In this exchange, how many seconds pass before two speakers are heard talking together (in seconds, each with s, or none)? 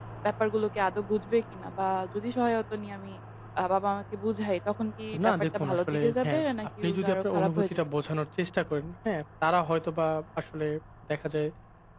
5.1 s